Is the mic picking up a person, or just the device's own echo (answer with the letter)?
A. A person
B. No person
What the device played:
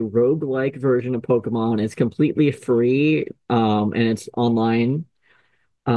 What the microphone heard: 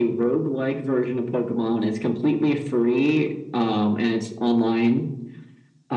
B